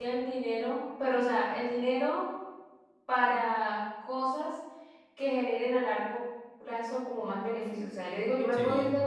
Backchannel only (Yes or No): Yes